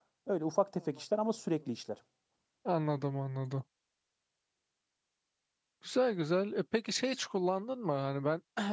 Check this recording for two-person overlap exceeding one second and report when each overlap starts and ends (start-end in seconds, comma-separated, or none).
none